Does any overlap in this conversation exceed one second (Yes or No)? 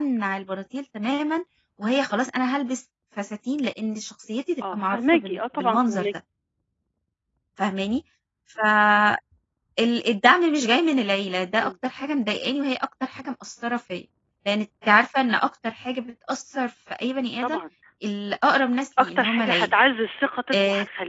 Yes